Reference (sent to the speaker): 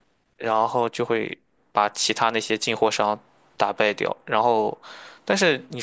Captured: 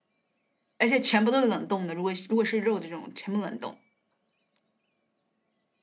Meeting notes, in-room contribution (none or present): present